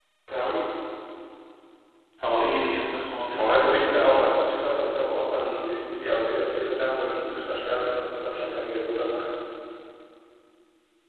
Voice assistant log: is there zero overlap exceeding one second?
No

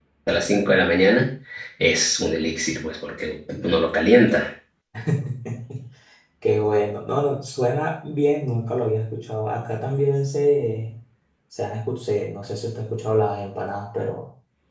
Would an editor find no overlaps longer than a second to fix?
Yes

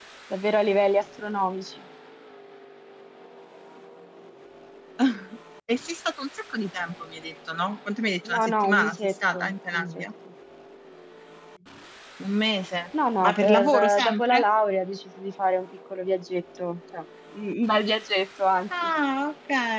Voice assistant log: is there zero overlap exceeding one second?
No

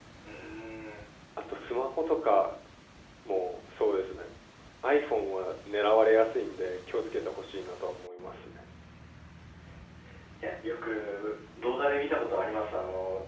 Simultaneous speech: No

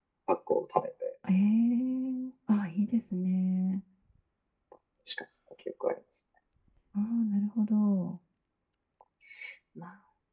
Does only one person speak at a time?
Yes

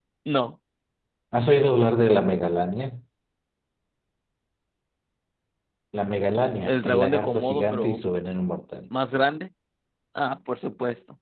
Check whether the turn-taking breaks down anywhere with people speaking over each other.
Yes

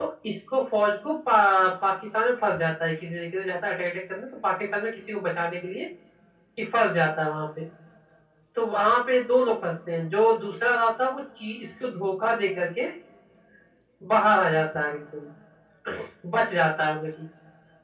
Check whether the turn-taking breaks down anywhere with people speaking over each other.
No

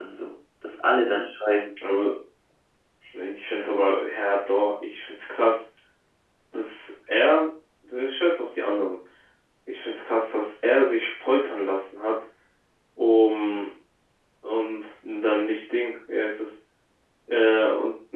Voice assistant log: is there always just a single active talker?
Yes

